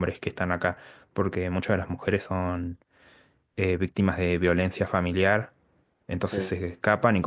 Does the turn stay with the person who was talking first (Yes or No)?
Yes